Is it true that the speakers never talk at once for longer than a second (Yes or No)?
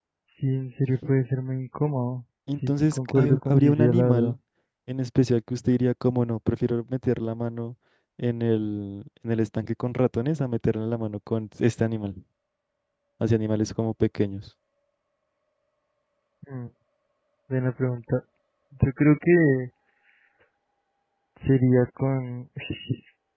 No